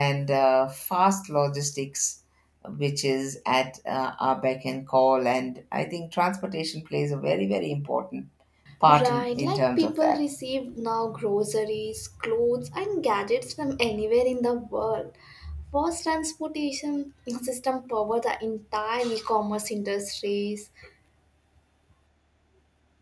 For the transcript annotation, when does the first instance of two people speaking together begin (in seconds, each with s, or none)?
9.0 s